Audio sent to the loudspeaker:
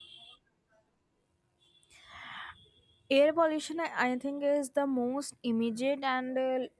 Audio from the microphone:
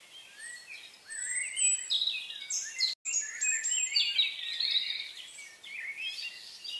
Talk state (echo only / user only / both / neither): neither